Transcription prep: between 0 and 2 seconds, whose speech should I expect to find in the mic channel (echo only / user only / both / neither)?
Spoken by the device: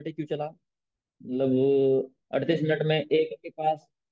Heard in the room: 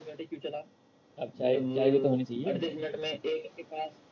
both